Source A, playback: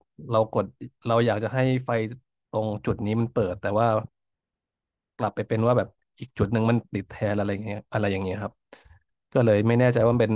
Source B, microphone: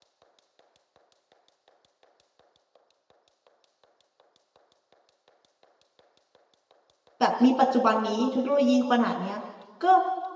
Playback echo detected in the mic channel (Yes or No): No